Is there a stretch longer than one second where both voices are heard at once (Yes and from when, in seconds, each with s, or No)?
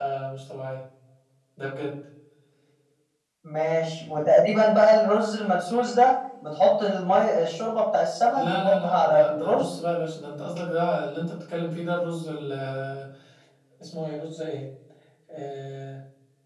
Yes, from 8.3 s